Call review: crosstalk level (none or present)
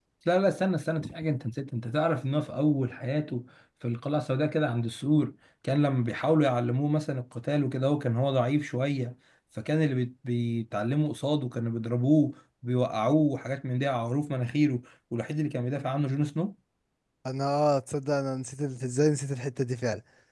none